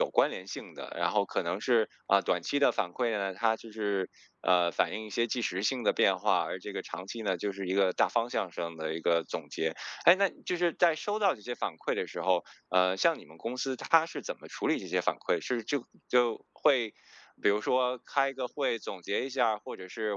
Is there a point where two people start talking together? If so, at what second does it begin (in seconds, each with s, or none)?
none